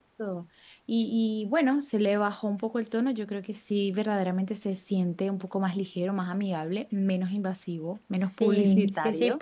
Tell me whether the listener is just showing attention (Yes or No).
No